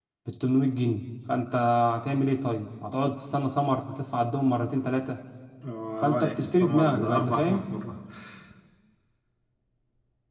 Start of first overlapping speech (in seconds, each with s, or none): 6.0 s